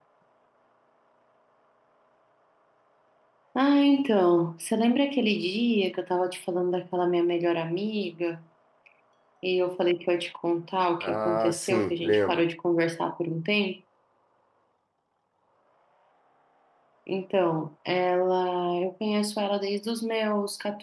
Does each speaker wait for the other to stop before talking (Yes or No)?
No